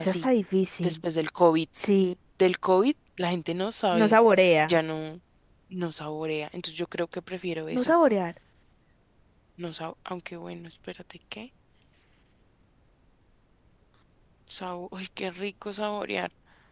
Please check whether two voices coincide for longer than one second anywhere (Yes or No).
No